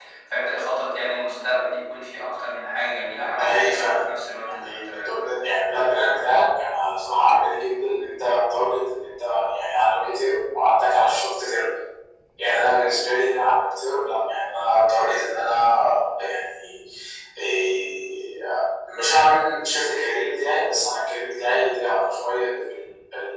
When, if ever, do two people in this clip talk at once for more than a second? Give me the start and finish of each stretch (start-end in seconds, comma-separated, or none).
3.4-5.1